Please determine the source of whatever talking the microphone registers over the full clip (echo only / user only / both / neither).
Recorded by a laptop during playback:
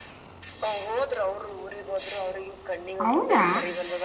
both